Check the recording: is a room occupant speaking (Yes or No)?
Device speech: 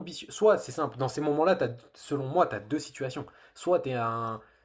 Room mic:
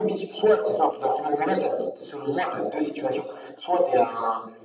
No